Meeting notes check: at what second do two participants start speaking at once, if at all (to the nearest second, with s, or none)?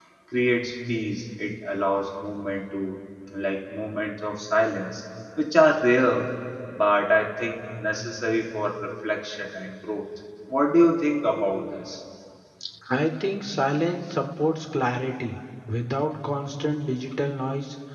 none